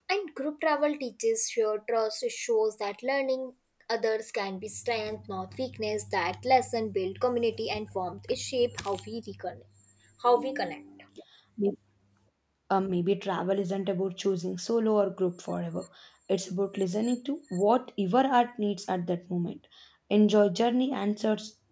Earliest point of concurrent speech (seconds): none

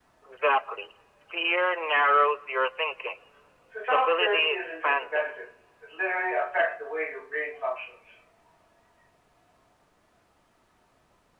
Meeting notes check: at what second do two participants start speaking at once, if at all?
3.7 s

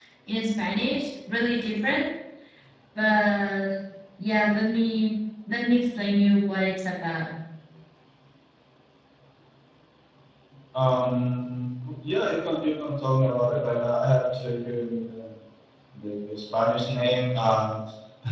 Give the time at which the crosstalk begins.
none

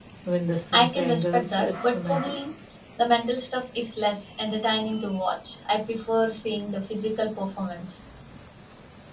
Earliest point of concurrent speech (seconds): 0.7 s

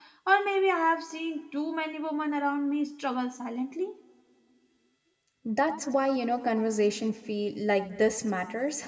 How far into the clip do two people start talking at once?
none

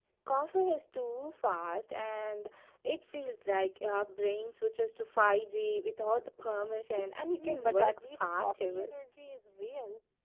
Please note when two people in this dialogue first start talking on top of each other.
7.3 s

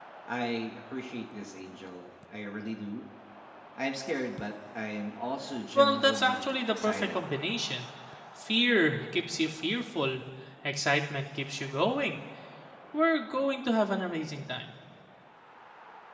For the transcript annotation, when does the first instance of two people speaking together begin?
5.8 s

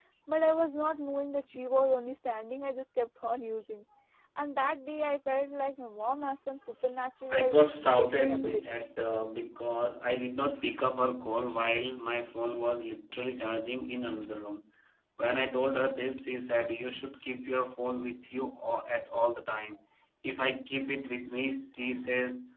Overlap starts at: 7.3 s

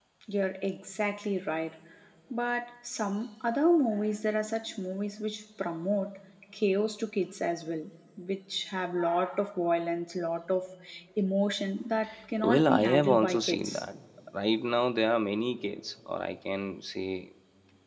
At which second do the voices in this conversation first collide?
12.4 s

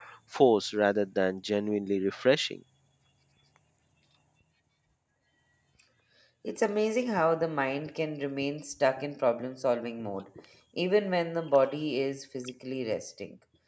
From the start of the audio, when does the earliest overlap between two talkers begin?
none

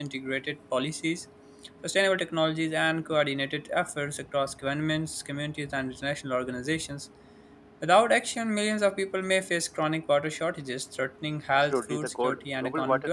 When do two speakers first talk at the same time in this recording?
11.5 s

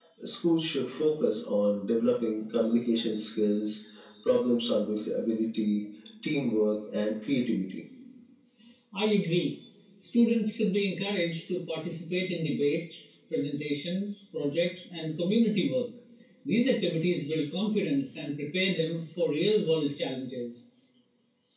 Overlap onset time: none

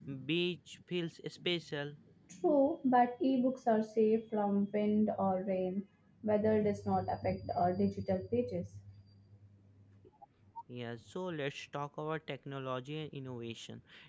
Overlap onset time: none

